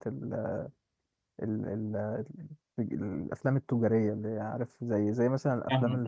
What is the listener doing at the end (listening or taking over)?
listening